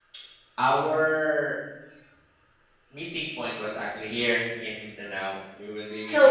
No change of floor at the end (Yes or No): No